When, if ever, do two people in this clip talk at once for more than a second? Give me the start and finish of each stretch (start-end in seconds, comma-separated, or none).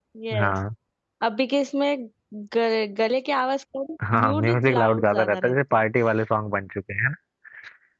4.1-5.8